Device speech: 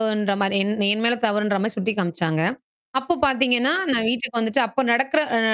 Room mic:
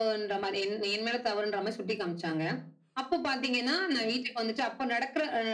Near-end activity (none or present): none